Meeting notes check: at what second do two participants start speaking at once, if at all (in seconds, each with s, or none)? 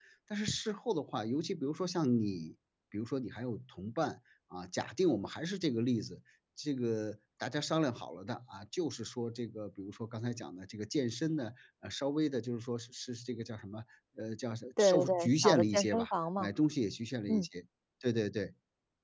14.8 s